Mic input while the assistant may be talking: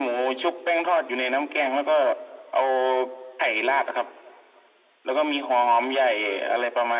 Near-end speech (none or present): none